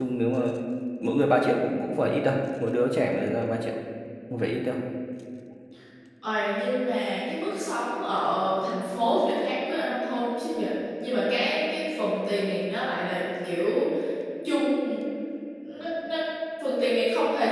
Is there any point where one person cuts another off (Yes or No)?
No